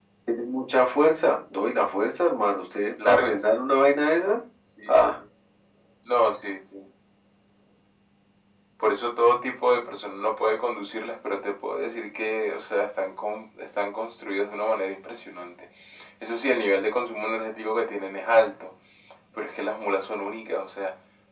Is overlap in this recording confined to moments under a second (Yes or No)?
Yes